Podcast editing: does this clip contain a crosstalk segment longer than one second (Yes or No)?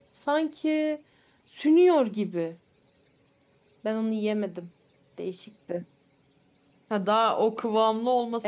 No